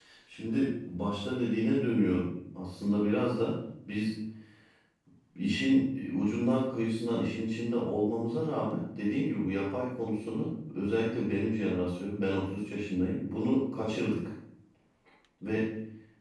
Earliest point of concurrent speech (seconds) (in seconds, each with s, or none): none